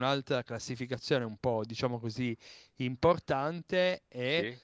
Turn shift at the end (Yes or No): No